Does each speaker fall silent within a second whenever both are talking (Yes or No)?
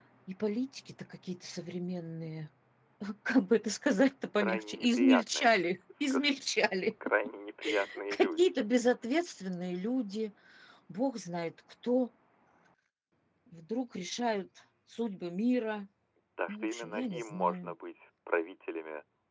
No